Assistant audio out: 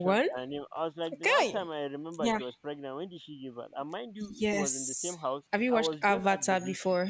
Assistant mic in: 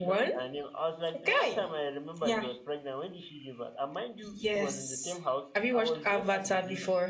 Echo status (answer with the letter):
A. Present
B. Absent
A